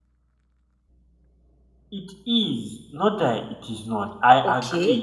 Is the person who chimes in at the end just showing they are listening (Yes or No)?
No